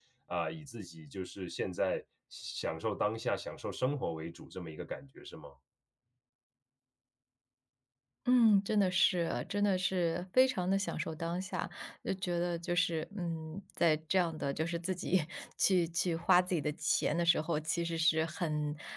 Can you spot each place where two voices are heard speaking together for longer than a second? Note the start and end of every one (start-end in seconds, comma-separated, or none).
none